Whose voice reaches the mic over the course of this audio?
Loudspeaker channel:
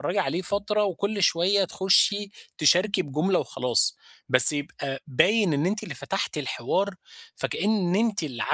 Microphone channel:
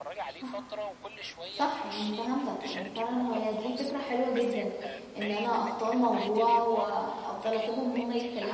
both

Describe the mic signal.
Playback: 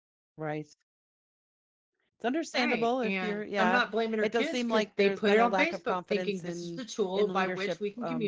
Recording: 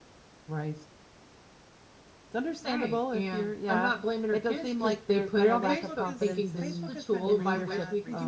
both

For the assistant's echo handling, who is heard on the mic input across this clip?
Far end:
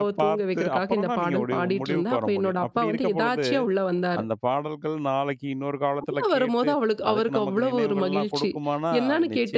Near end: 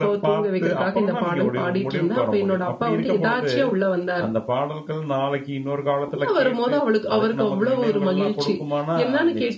echo only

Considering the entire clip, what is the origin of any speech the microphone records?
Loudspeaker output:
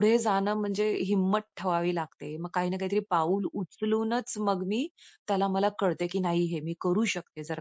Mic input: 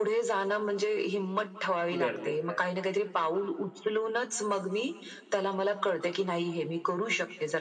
both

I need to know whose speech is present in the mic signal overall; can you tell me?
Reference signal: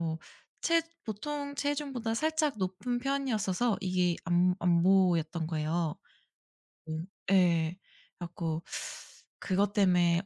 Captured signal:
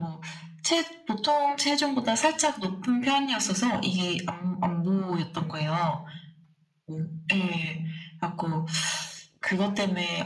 echo only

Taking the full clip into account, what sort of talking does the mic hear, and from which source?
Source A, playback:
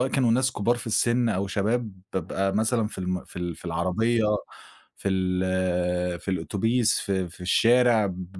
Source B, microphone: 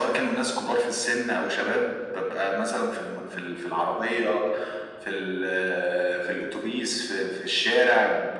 echo only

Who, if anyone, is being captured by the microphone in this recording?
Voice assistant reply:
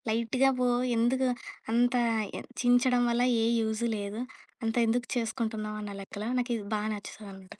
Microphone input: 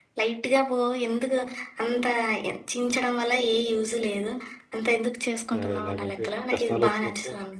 both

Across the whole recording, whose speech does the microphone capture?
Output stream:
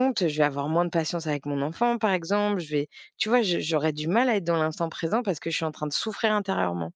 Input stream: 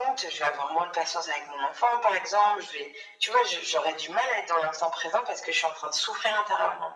echo only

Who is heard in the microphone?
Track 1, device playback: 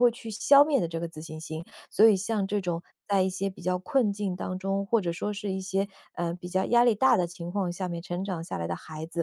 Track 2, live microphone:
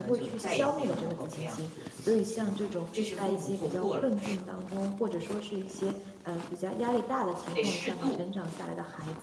both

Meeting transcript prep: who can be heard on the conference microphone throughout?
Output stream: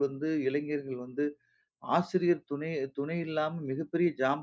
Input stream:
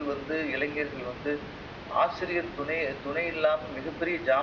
echo only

